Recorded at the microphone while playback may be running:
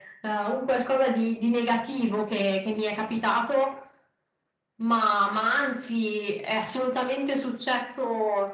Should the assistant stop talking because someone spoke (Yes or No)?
No